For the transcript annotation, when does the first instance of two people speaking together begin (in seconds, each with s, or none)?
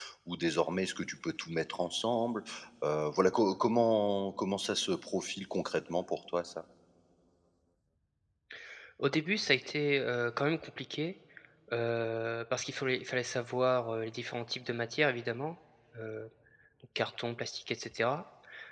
none